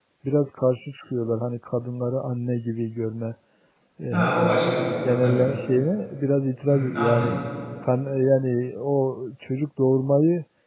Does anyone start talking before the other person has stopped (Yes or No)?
Yes